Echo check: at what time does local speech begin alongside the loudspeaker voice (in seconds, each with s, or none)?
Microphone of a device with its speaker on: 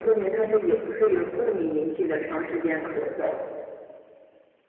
none